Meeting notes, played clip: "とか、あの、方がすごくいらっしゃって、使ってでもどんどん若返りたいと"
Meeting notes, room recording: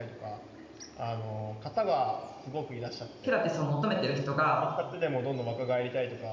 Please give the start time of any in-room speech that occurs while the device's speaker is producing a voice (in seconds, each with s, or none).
3.2 s